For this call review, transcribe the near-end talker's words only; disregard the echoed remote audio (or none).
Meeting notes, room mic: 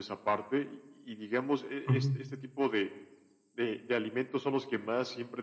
Ujú.